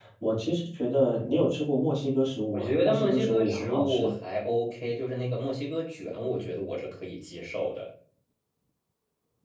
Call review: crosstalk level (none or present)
present